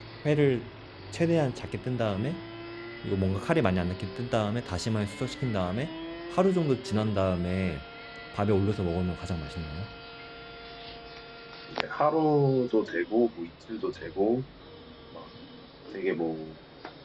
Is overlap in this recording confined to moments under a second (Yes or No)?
Yes